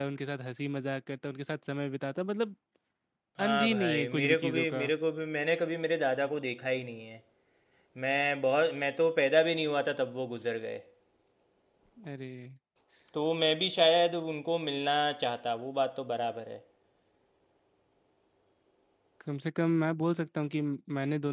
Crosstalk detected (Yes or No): Yes